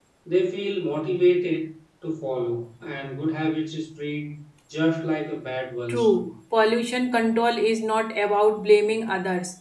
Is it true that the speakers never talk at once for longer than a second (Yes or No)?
Yes